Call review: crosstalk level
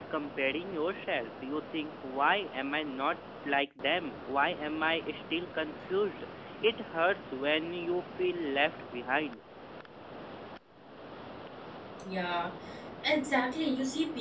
none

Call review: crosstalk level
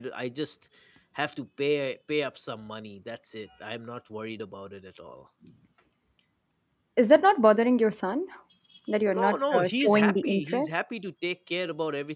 present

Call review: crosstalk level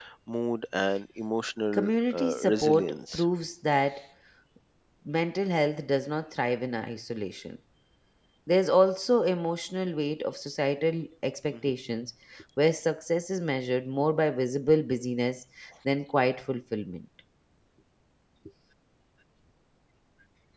present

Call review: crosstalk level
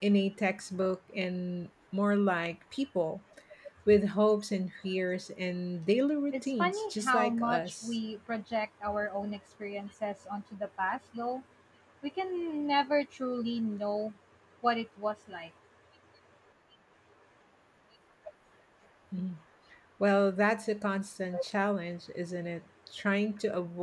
present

